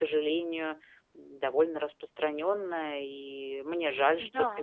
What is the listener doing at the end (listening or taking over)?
listening